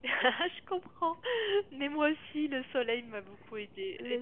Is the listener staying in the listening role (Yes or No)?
Yes